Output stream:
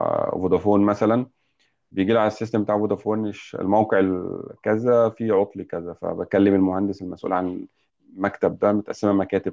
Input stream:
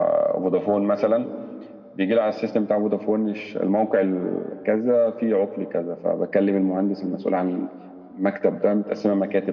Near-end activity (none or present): none